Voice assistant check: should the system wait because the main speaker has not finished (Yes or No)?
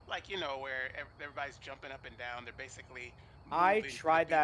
No